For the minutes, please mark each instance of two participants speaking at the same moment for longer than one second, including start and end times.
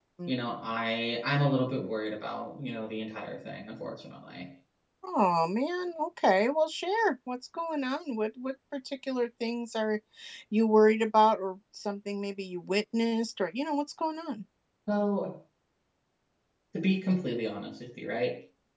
none

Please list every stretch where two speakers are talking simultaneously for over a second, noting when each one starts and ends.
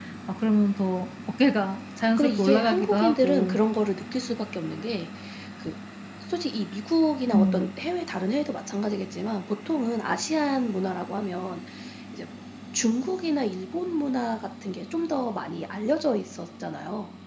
2.2-3.6

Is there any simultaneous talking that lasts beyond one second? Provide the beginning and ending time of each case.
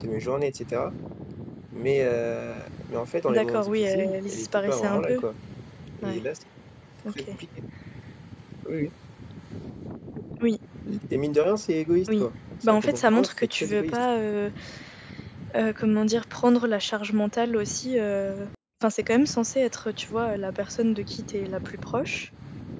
3.3-5.2, 12.6-14.0

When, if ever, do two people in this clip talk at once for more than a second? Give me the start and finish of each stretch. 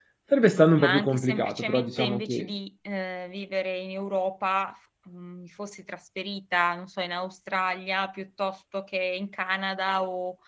0.8-2.5

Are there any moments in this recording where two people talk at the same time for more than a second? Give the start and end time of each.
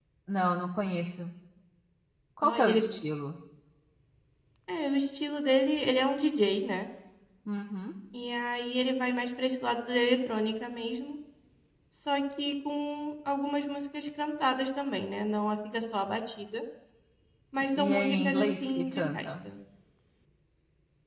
17.7-19.3

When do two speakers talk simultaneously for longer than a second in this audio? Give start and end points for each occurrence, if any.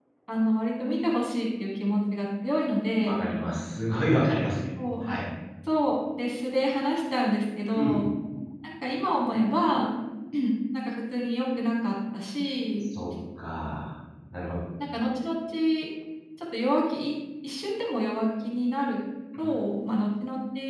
none

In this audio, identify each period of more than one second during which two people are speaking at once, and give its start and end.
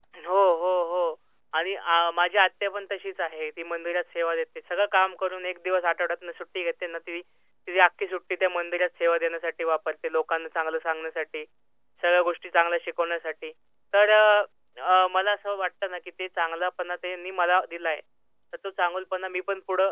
none

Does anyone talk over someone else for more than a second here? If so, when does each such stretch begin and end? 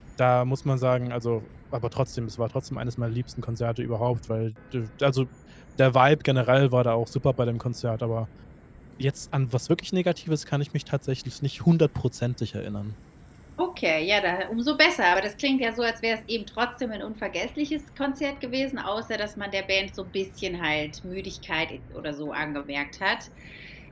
none

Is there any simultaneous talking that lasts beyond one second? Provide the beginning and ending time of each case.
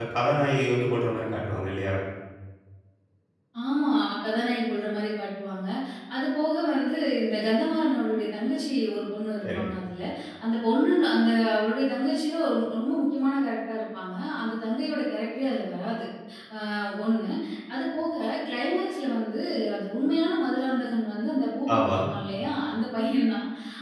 none

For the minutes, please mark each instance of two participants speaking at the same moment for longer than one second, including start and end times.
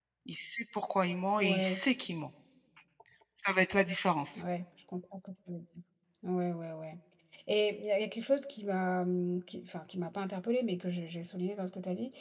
none

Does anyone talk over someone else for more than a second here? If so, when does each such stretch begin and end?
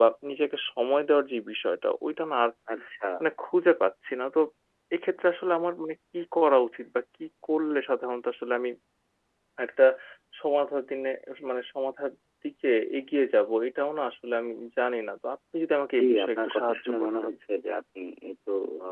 16.0-17.3

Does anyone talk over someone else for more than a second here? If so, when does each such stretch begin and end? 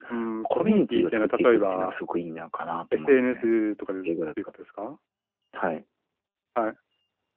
0.6-1.9

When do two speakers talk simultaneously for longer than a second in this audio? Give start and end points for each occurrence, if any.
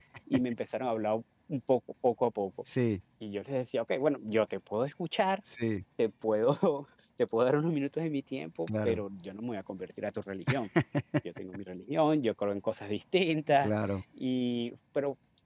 none

